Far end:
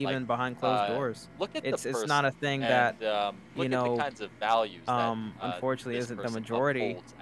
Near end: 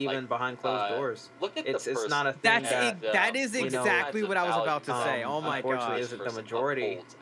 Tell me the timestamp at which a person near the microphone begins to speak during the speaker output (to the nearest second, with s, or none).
2 s